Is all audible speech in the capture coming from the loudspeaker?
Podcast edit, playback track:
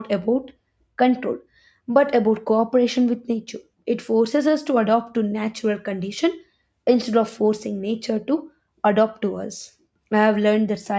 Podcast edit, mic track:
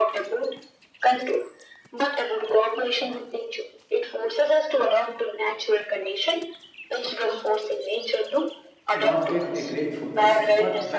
No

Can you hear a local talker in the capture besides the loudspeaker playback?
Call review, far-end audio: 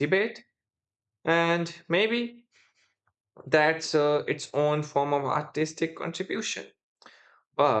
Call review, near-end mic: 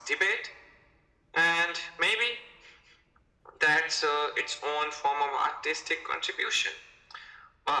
No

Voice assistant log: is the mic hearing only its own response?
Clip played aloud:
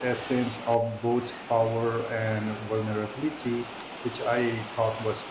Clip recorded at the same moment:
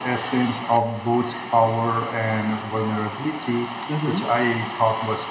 No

